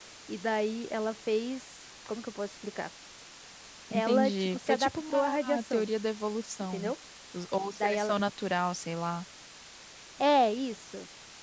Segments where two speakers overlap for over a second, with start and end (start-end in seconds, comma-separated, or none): 3.9-5.9